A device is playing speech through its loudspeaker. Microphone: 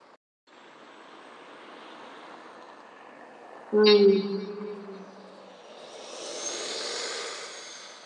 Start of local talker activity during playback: 3.7 s

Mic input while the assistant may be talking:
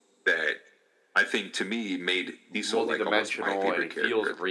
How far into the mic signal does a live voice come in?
2.5 s

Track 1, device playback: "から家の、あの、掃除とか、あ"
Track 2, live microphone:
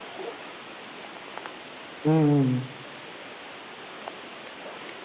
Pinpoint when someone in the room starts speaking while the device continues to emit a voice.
2.0 s

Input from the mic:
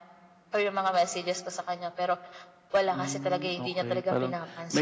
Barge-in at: 2.9 s

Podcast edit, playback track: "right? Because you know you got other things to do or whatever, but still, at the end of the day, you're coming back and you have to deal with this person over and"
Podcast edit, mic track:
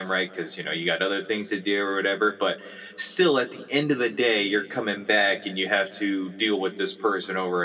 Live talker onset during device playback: none

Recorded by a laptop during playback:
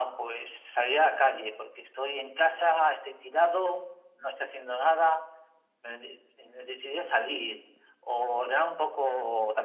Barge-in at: none

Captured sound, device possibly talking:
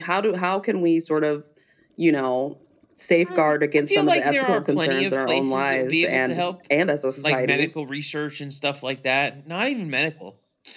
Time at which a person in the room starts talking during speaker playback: none

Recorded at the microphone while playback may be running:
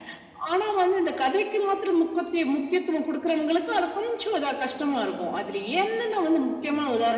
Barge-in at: none

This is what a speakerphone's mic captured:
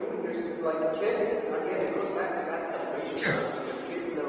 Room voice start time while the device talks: 3.1 s

